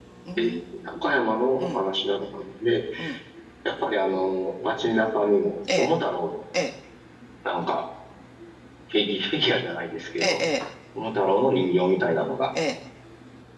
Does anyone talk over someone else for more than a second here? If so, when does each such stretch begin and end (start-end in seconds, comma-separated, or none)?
none